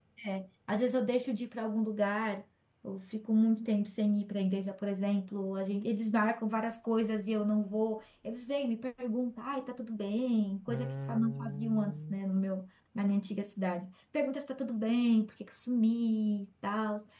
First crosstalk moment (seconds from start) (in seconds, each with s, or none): 10.7 s